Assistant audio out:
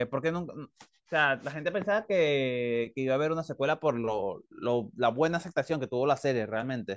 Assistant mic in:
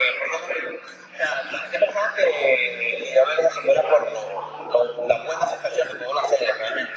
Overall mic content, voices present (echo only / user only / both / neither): echo only